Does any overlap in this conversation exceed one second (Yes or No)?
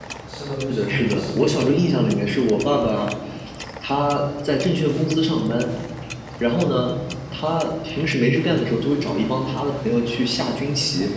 Yes